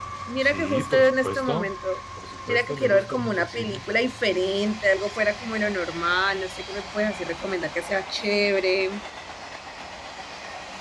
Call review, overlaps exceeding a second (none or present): present